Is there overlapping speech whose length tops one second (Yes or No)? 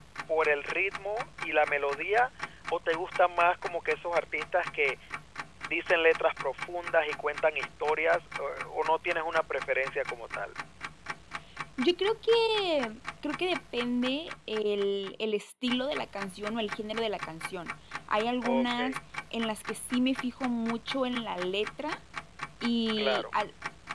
No